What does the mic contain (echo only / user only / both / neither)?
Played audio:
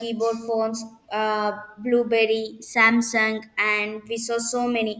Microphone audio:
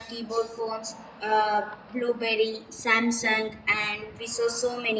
echo only